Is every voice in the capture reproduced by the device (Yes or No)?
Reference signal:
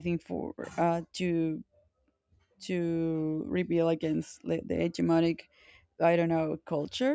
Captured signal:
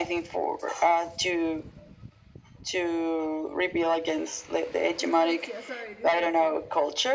No